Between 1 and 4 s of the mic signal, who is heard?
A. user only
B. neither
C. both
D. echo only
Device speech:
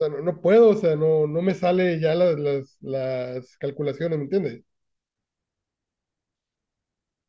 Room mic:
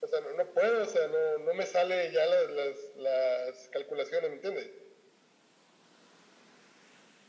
D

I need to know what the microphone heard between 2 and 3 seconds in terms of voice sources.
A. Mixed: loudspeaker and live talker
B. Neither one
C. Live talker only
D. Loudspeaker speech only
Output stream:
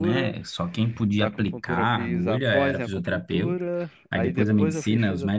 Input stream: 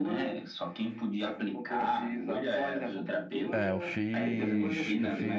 D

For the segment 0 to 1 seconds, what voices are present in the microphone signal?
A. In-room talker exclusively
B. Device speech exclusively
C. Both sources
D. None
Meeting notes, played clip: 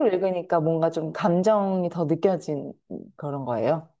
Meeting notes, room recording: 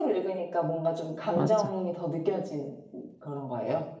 B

